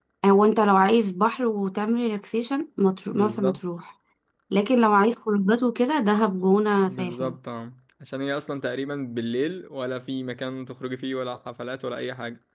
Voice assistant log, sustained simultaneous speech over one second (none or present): none